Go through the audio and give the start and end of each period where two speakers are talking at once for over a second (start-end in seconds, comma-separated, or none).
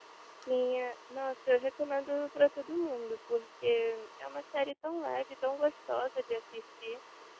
none